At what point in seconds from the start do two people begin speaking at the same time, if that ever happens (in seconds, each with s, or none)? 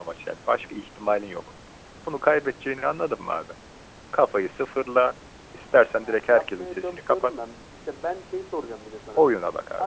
5.9 s